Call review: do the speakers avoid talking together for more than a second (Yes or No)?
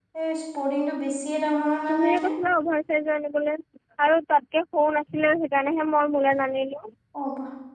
Yes